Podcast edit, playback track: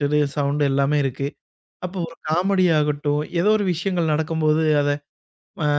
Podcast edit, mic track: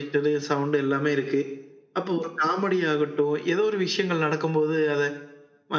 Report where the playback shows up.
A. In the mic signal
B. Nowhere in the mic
A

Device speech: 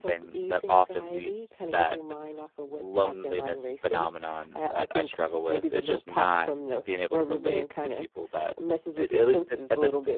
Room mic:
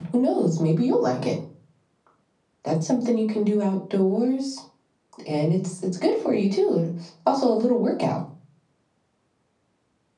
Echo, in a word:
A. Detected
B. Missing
B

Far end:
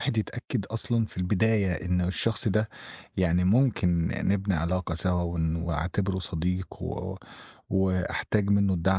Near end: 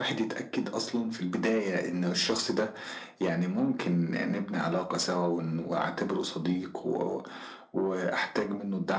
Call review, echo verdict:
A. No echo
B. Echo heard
B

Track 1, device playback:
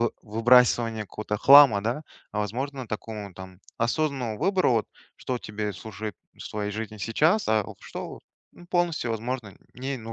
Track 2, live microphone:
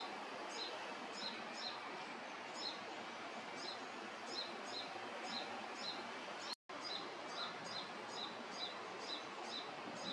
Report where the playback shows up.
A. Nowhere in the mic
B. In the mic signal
A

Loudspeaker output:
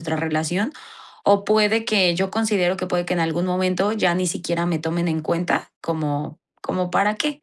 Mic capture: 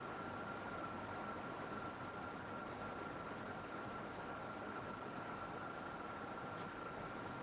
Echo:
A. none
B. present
A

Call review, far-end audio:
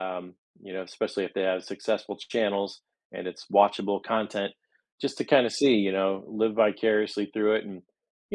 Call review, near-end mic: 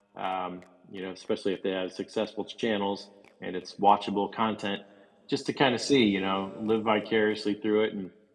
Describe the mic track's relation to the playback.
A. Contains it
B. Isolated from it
A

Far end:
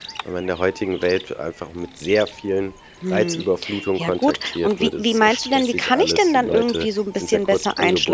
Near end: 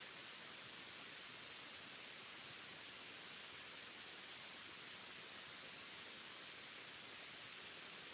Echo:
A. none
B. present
A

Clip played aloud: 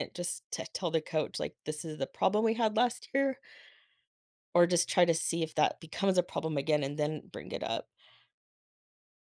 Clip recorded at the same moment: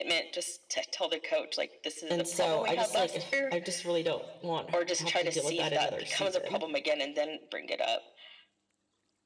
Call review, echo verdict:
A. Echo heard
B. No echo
A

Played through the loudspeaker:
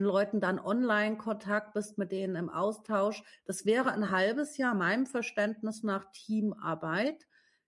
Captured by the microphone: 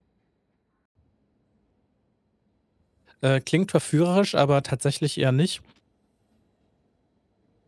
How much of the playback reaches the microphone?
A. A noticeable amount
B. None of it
B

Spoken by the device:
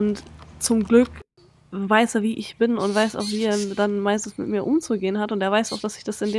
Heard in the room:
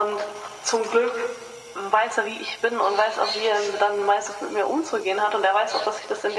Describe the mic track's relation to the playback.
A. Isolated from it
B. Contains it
B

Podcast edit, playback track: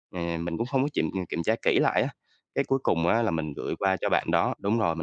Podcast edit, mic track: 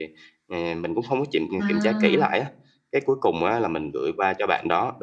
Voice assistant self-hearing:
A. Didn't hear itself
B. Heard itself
B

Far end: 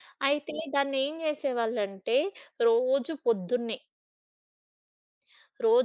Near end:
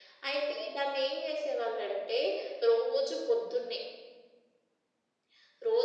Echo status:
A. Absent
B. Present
B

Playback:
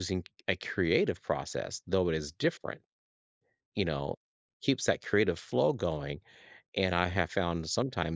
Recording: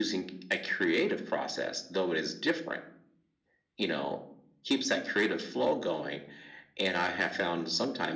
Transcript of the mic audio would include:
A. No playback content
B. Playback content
B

